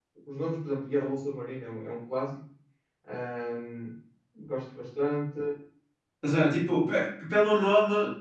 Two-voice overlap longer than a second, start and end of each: none

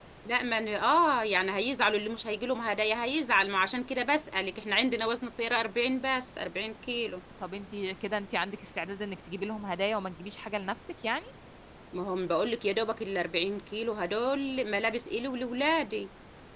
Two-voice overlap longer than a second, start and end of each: none

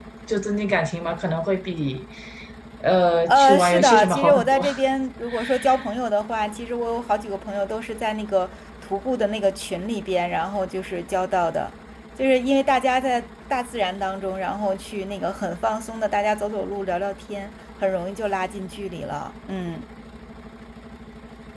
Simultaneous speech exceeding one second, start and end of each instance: 3.3-4.6

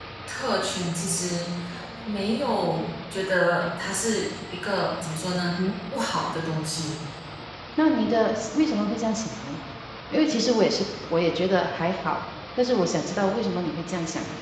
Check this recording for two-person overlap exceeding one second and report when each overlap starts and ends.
none

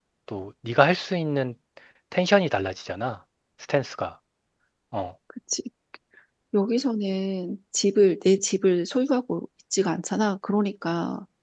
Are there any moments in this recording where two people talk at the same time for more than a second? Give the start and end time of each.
none

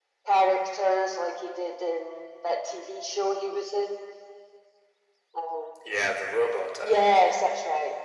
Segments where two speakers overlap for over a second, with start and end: none

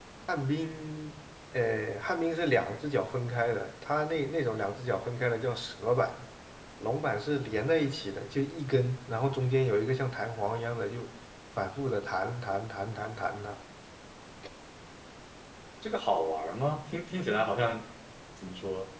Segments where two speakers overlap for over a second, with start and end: none

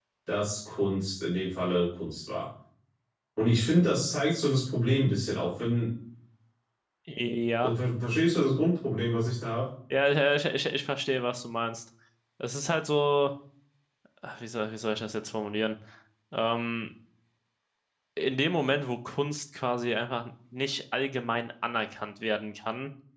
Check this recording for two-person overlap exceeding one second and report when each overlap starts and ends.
none

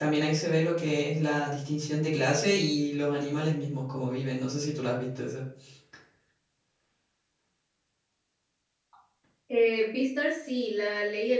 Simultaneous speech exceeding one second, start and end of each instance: none

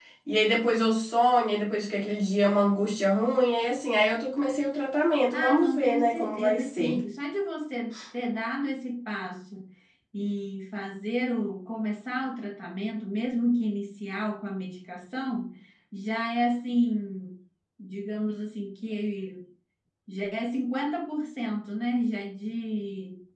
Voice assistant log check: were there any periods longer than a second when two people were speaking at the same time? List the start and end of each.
5.3-7.0

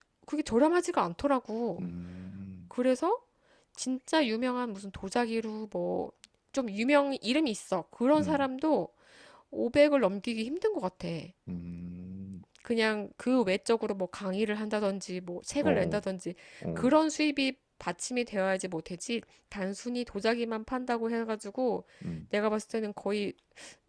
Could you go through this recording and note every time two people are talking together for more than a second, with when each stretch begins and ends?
none

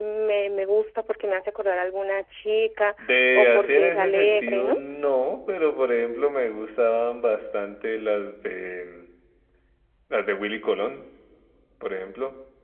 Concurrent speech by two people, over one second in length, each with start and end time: 3.4-4.8

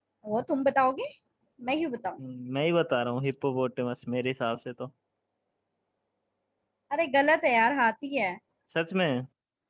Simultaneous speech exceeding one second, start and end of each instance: none

